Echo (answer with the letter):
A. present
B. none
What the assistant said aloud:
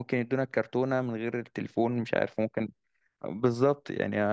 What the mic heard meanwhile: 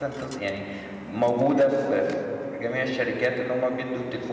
B